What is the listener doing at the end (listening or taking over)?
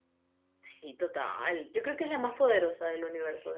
taking over